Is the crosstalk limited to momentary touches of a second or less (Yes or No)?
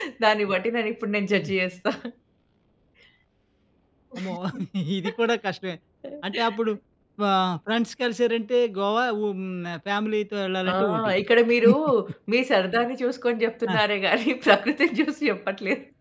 Yes